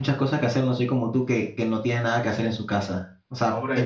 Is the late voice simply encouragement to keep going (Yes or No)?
No